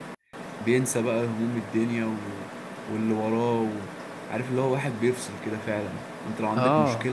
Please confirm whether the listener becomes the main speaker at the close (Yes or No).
No